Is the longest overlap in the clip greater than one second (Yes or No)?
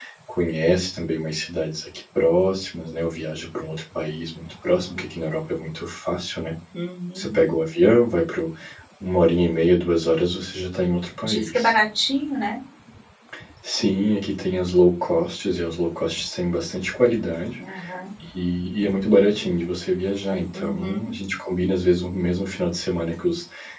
No